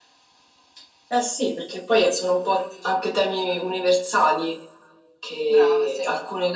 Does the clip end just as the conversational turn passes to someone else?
No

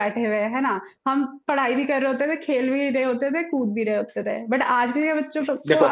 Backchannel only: Yes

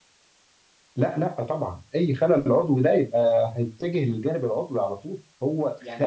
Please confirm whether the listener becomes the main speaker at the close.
Yes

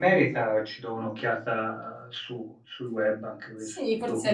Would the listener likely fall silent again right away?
No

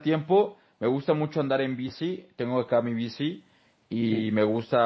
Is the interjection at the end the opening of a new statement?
No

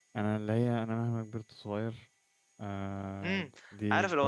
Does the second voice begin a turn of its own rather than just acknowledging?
Yes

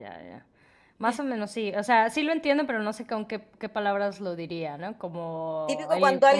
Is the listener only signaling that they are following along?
No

